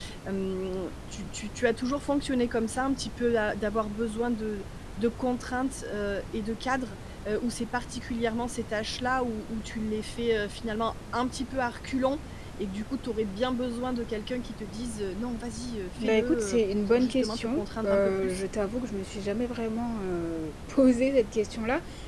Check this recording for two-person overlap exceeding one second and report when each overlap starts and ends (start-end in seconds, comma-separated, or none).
16.0-18.4